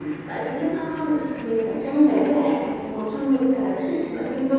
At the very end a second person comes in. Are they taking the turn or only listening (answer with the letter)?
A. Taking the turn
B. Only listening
B